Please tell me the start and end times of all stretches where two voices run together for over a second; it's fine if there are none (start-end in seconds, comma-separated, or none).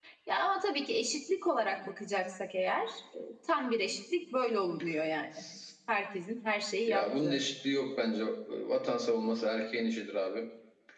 none